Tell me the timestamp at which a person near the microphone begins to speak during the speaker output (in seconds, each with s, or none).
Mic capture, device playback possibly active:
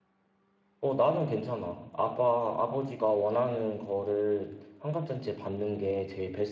0.8 s